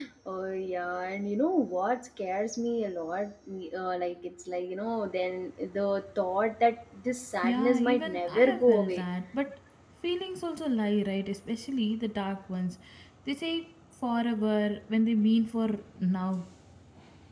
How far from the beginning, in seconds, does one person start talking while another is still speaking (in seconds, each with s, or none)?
7.4 s